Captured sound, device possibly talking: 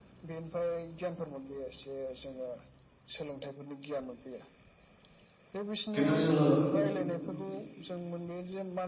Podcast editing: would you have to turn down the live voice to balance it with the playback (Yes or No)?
Yes